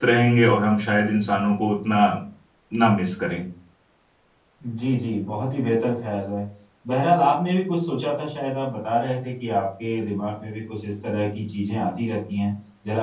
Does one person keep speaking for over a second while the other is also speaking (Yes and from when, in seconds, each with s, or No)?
No